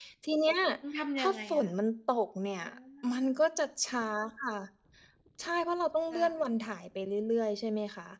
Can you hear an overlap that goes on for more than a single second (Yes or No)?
No